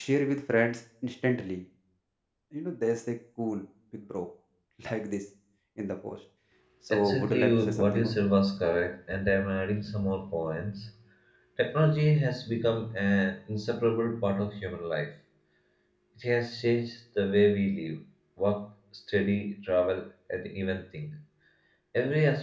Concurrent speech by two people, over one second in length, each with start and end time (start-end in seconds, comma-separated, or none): 6.9-8.2